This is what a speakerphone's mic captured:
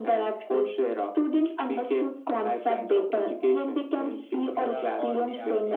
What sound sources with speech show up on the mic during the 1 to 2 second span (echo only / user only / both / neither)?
echo only